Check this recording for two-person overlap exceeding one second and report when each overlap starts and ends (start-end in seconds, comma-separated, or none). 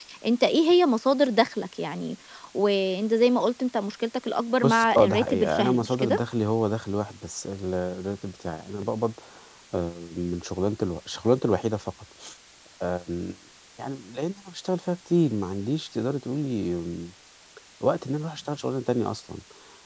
4.6-6.2